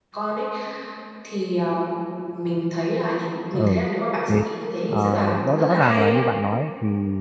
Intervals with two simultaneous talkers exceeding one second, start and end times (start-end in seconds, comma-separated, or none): 4.9-6.2